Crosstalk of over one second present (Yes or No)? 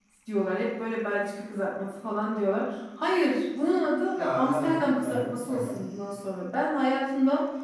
Yes